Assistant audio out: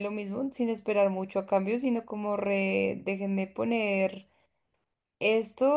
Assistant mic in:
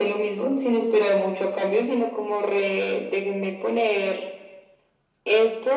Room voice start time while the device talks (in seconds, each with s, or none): none